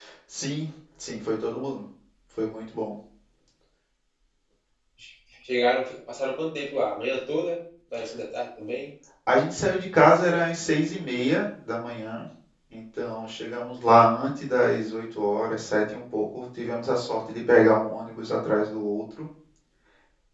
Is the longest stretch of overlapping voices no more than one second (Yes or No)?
Yes